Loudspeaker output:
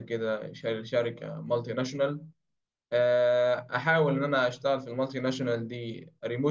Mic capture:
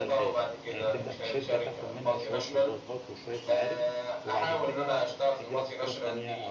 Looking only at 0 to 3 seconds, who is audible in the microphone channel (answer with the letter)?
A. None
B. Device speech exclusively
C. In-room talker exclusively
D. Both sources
D